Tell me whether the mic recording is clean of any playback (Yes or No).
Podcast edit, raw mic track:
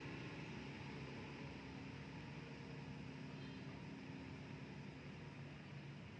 Yes